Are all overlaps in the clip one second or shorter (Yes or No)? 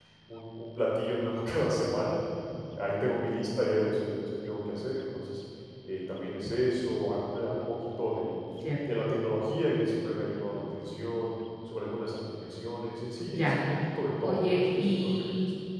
No